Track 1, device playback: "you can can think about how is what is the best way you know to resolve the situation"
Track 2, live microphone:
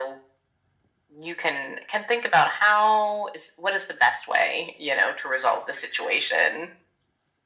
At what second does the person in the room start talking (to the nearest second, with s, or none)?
none